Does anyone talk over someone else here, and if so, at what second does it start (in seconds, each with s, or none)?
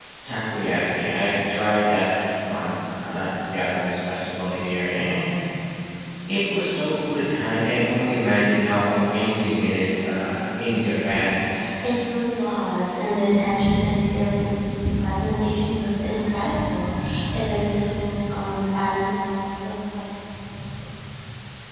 none